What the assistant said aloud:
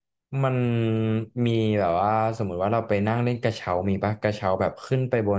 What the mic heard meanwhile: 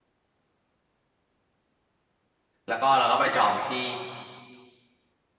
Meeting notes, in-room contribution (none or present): present